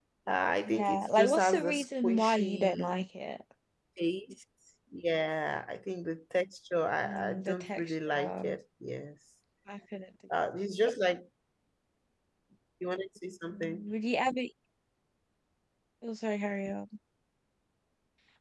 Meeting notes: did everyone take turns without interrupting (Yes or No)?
No